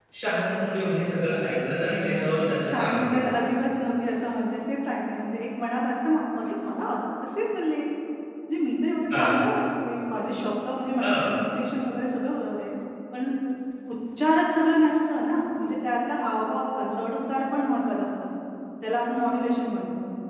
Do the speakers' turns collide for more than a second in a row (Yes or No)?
Yes